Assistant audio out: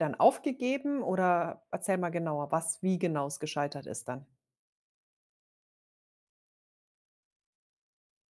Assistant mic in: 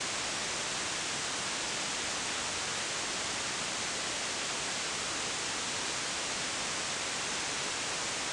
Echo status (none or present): none